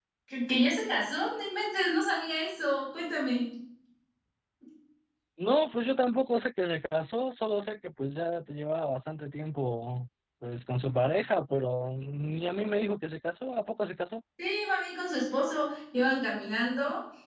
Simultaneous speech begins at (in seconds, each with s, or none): none